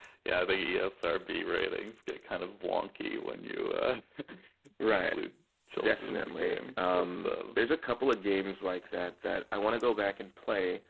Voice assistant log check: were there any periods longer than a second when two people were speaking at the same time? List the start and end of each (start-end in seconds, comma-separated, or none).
5.8-7.6